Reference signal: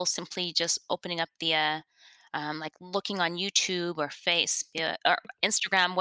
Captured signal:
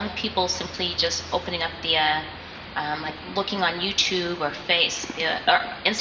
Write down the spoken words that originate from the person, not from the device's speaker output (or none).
none